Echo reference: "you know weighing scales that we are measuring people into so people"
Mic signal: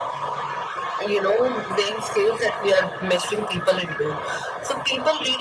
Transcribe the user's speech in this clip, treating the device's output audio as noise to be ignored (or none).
none